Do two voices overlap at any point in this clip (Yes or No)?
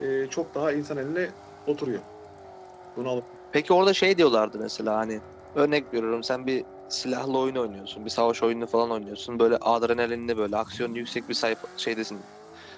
No